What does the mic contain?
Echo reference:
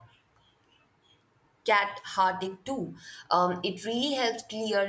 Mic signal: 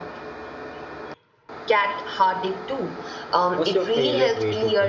both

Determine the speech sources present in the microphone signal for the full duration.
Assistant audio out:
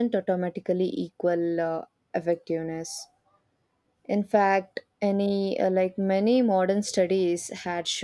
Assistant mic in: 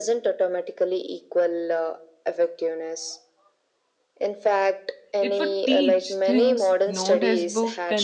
both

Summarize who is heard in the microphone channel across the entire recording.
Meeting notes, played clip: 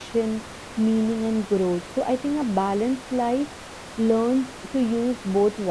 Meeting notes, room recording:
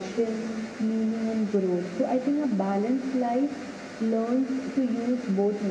echo only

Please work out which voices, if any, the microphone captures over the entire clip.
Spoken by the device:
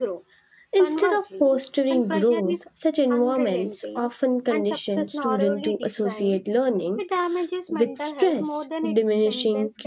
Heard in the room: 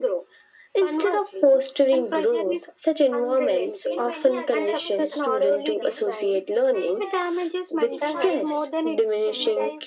both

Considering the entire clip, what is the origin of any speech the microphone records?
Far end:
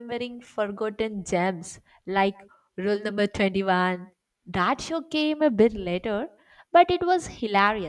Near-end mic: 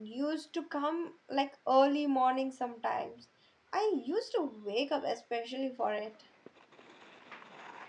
user only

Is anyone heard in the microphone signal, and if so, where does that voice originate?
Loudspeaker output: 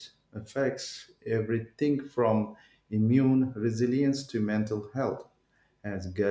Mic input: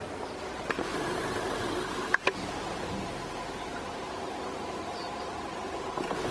neither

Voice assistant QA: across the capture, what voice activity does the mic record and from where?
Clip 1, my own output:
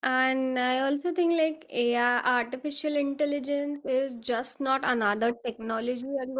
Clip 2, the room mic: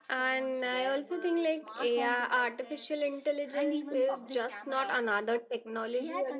both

